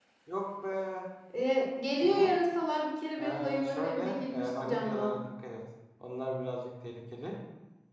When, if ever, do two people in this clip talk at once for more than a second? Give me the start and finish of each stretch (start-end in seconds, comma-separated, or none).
3.2-5.2